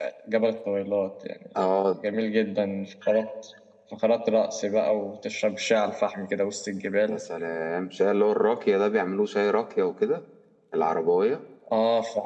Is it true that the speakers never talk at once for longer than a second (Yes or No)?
Yes